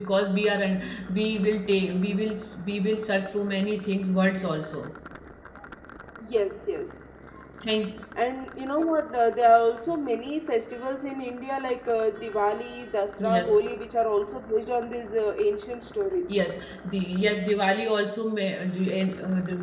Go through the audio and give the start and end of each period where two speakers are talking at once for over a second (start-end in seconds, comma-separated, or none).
none